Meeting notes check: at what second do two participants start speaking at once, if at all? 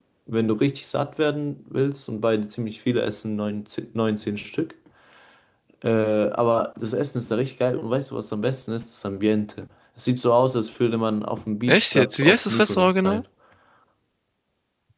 11.7 s

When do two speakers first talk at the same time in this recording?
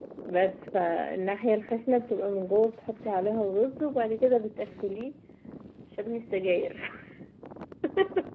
none

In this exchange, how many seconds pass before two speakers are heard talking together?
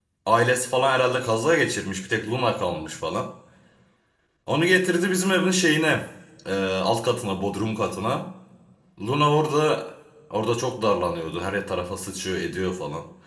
none

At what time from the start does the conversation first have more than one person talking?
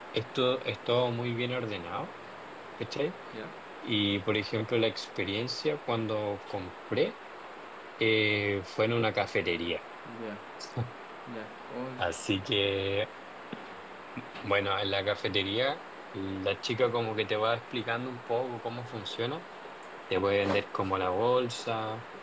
none

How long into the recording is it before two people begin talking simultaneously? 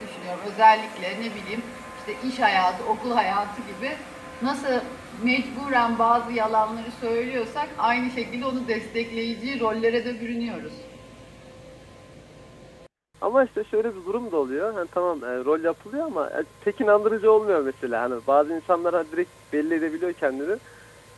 none

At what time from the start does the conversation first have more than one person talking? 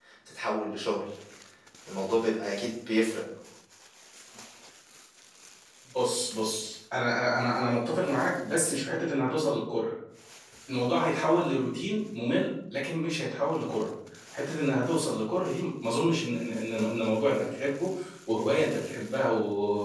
none

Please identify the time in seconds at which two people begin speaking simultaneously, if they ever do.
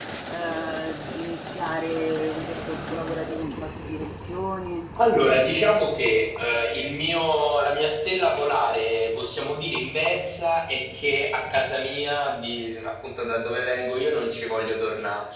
none

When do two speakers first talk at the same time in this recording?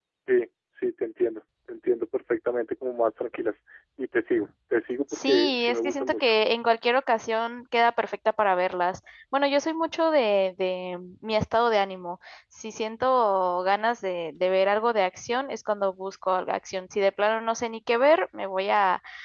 5.1 s

